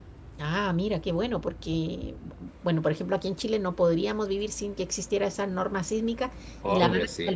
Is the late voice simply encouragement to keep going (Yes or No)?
Yes